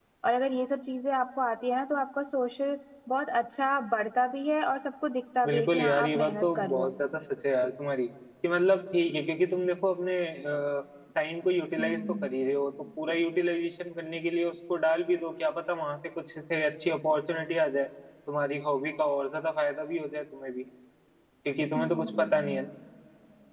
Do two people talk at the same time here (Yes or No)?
Yes